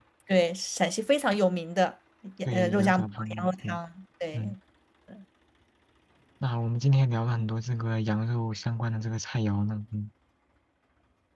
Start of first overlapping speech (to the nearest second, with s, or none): 3 s